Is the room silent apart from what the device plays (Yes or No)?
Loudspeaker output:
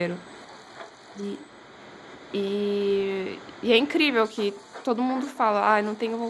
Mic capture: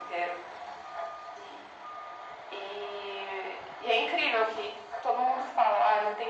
Yes